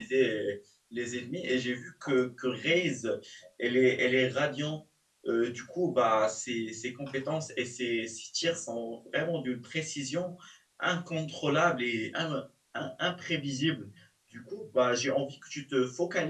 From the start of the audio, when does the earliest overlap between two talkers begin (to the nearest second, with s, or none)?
none